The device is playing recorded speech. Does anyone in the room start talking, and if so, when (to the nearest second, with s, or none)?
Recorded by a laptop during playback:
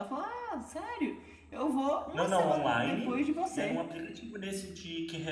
2 s